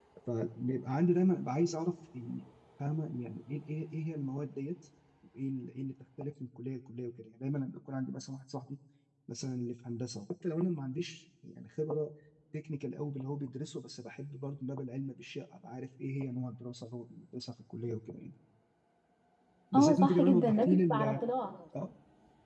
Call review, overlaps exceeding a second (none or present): present